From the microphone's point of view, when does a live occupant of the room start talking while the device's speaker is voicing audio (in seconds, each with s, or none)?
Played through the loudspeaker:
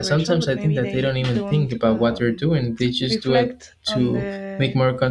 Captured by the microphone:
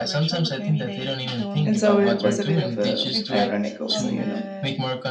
1.6 s